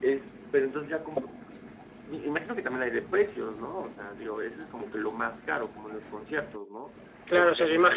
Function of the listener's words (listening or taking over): taking over